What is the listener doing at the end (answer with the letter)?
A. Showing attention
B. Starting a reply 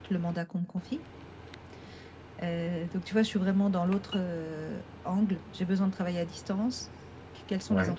A